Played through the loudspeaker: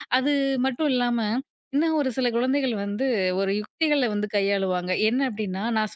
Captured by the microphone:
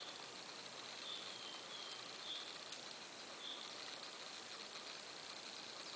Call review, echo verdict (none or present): none